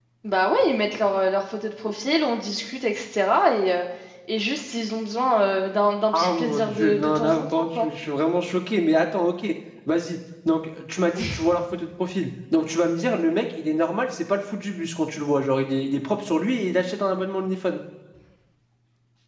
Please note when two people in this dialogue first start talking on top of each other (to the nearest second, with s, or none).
6 s